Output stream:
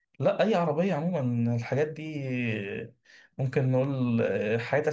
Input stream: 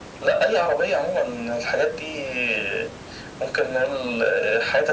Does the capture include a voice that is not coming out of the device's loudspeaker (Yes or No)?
No